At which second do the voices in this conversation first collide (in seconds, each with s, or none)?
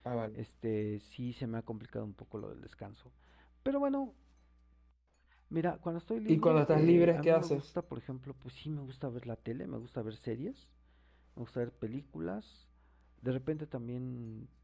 6.3 s